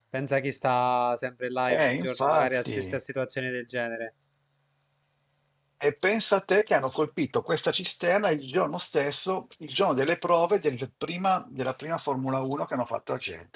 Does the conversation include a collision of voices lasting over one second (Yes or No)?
Yes